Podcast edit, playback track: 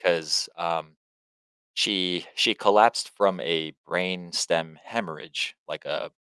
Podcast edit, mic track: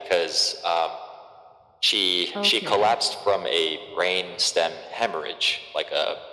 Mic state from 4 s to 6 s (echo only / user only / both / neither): echo only